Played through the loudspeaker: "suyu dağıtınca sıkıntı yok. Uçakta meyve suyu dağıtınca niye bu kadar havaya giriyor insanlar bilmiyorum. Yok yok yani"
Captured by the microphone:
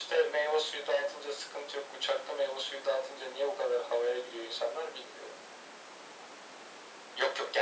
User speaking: No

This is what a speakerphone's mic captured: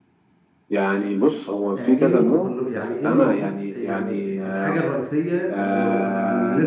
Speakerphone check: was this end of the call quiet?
No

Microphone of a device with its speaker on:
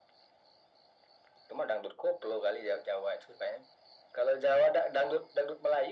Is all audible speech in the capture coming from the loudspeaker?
Yes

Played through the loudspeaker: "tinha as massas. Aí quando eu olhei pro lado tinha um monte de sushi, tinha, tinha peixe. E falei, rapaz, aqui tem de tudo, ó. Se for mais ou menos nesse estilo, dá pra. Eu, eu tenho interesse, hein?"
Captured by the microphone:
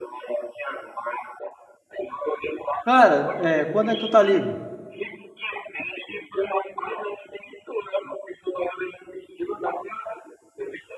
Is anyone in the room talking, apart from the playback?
Yes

